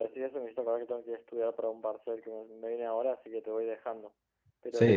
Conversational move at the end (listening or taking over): taking over